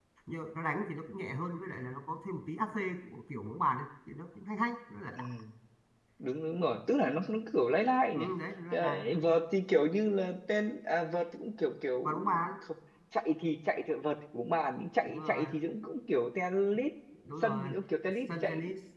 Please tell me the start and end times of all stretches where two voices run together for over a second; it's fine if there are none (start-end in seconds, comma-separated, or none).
none